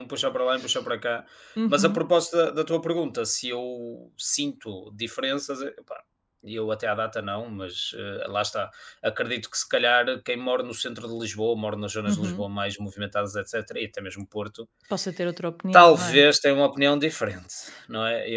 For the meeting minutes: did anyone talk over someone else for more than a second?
No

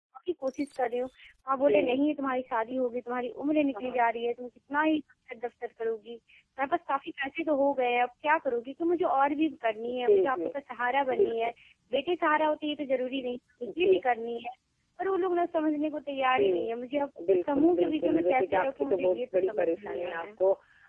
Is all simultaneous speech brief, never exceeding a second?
No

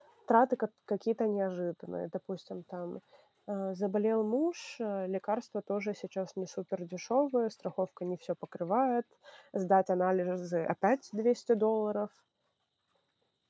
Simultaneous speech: No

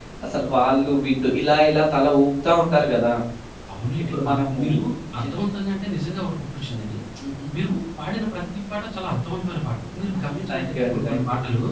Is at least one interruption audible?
Yes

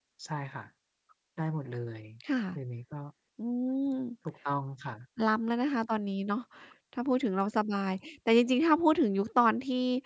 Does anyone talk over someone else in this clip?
No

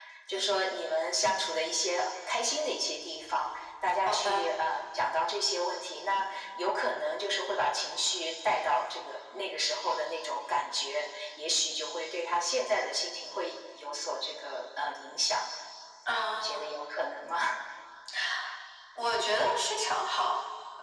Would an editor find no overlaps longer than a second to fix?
Yes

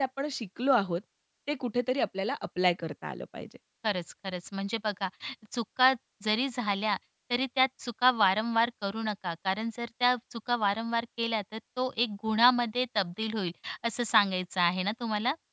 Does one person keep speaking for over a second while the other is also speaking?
No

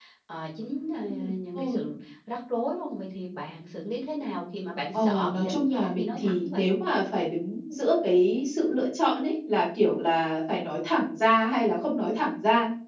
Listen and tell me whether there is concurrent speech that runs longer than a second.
Yes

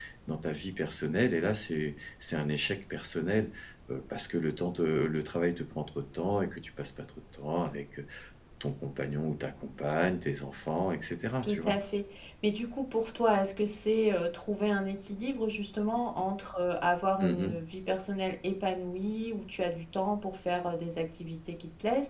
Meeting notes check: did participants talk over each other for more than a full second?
No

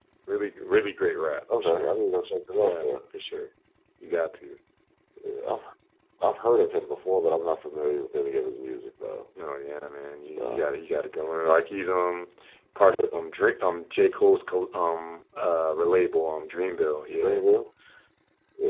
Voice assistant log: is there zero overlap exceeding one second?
Yes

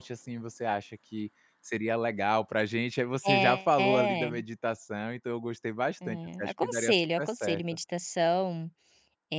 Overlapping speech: Yes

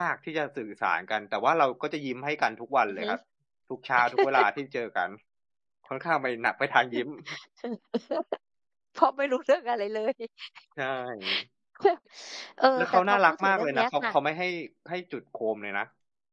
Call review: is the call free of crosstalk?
No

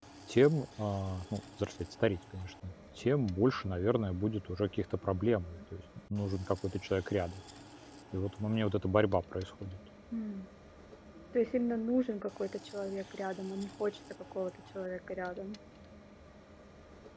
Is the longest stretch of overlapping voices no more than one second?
Yes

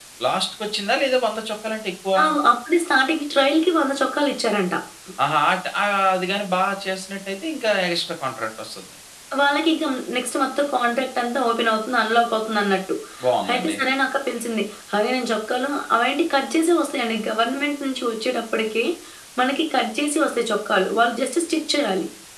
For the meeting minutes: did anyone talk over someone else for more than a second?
No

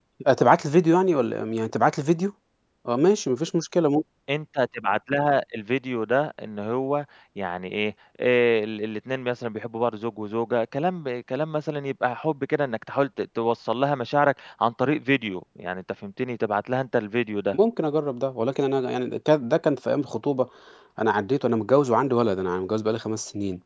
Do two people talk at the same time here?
No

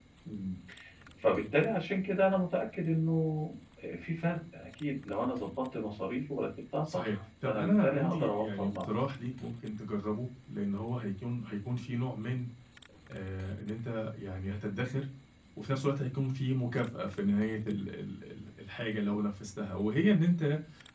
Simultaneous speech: Yes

